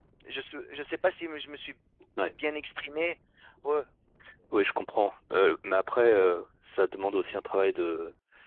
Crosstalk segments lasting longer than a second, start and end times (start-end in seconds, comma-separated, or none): none